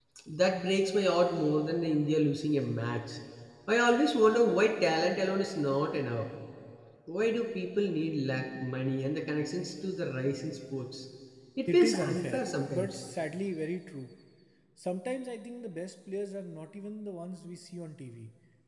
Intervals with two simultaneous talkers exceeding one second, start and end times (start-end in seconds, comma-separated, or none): 11.7-13.0